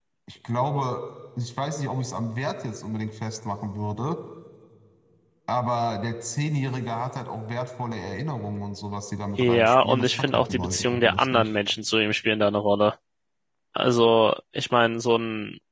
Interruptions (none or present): present